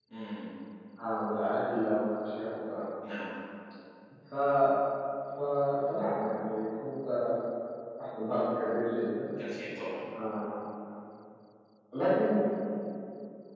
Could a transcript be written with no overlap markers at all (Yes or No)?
Yes